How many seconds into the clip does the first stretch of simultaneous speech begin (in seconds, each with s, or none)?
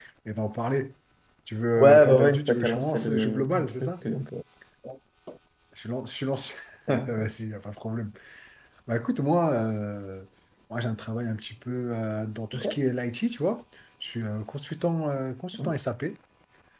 1.8 s